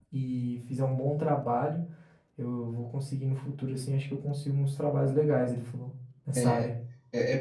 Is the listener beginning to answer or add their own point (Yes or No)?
Yes